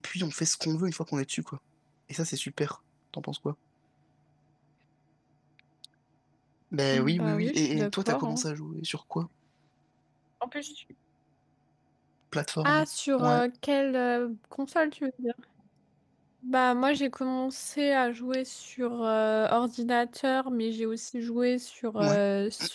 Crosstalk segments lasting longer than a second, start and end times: 6.9-8.4

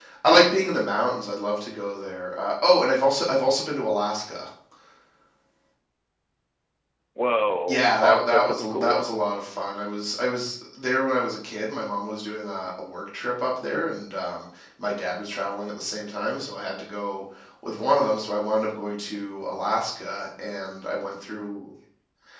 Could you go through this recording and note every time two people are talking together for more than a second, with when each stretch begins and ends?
7.7-9.0

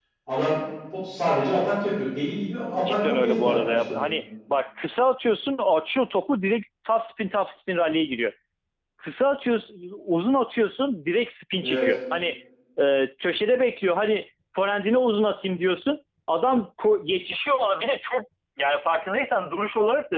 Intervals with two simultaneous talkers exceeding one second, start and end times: 2.8-4.0

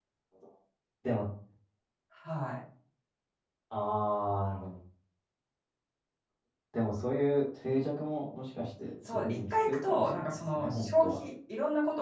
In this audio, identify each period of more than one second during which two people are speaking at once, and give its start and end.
9.0-11.2

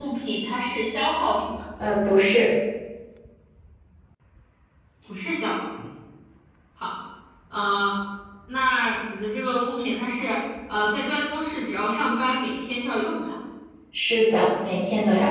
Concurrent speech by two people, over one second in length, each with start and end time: none

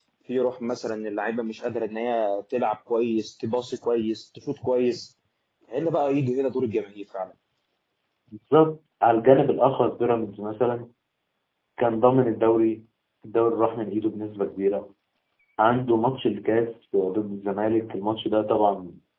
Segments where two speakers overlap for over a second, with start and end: none

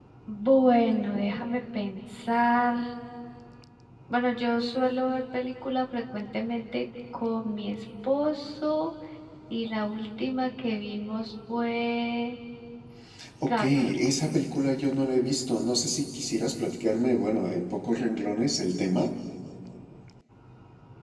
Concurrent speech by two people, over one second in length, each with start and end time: none

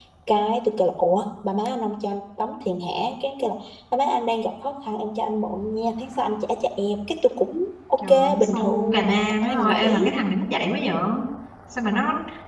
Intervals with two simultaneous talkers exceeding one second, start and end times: 8.1-10.0

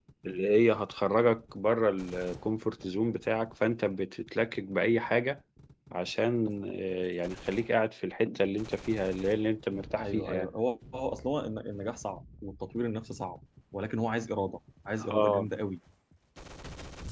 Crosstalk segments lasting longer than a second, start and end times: none

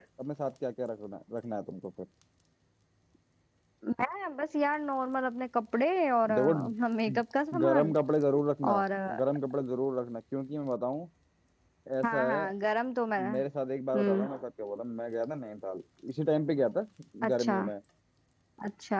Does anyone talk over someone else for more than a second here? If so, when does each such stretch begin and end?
none

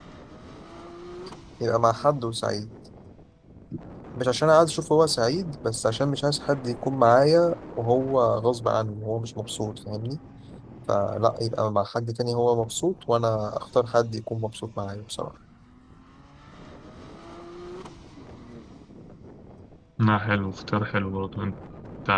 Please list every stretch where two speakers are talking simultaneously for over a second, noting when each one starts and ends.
none

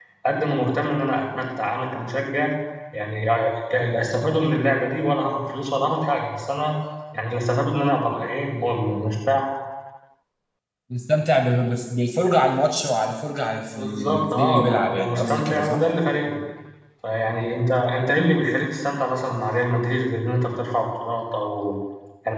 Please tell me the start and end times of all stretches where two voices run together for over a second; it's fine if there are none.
13.7-15.8

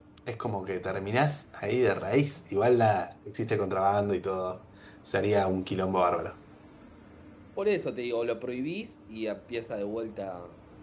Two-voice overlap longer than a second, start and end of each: none

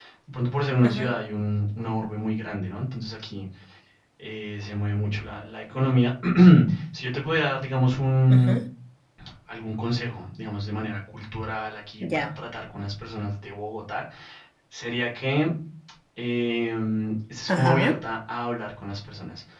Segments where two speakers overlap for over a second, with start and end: none

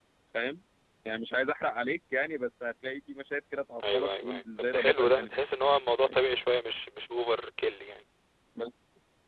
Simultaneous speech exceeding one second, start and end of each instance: 3.8-5.3

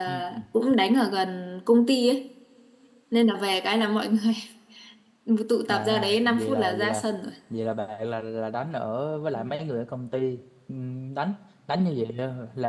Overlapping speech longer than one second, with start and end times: 5.7-7.0

